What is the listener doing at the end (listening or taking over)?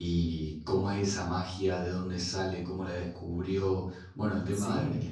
listening